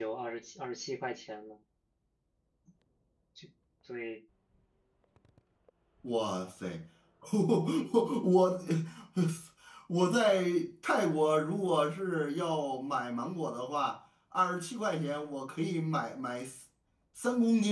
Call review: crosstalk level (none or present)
none